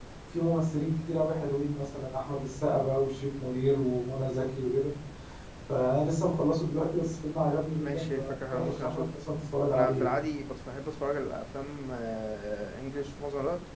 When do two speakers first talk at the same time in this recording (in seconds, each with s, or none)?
7.8 s